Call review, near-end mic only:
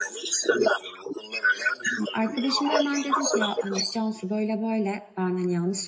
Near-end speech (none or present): present